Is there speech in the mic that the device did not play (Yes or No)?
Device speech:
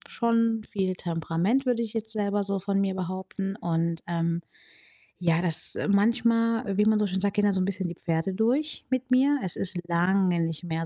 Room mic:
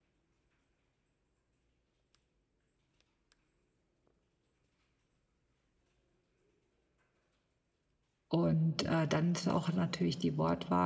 Yes